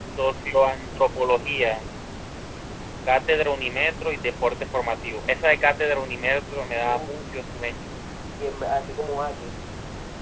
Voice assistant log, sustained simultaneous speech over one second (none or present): none